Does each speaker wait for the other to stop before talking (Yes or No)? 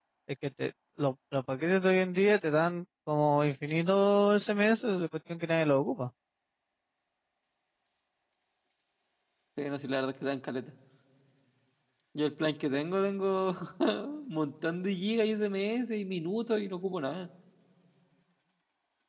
Yes